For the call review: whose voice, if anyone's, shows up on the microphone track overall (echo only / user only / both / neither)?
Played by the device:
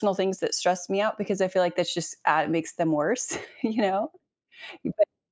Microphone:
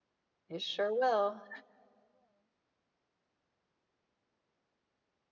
user only